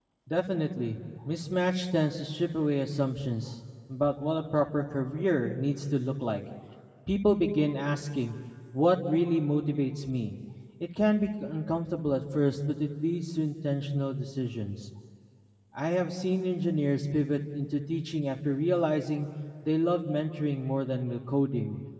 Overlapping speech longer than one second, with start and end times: none

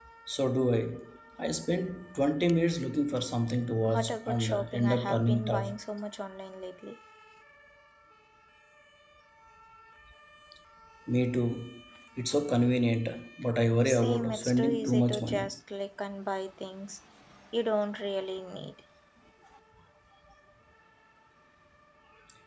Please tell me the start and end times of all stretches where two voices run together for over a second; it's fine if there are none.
3.8-5.7, 13.8-15.5

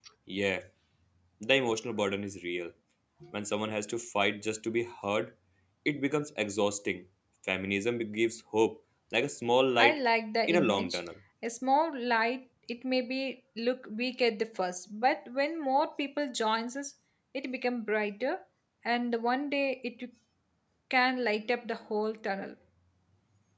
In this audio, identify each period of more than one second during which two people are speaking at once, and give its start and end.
none

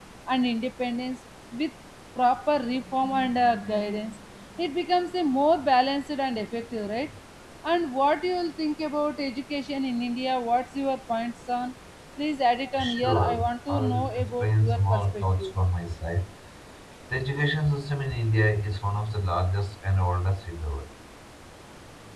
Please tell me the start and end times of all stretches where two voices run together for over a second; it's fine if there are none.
13.0-15.5

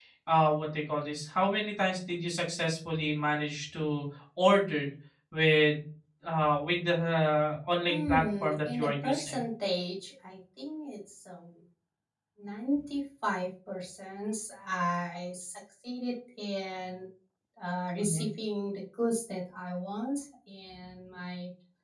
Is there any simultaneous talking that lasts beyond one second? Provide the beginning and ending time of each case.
7.9-9.4

